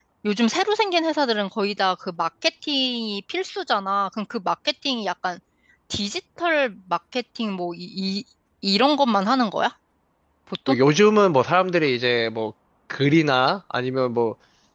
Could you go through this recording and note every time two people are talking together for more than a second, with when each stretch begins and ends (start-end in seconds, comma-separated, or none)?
none